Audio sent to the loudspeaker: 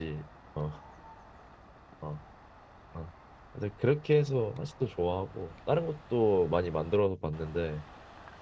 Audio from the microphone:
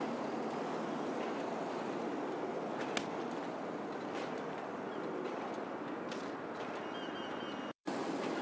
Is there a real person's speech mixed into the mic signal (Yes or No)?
No